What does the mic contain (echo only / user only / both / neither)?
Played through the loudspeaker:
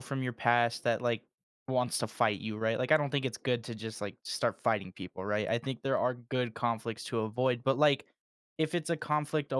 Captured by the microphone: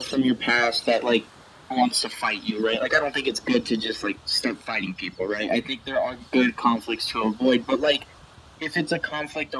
echo only